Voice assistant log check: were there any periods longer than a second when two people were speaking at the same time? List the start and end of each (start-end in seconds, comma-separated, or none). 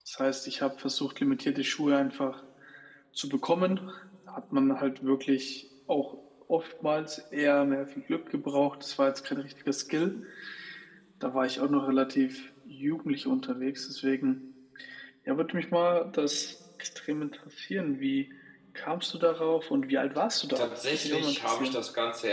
20.6-21.8